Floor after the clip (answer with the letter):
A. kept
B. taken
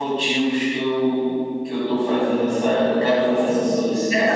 B